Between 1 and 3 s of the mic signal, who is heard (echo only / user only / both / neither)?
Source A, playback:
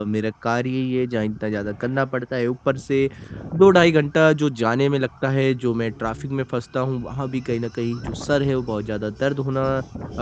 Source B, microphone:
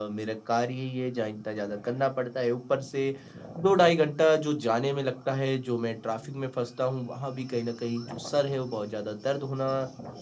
echo only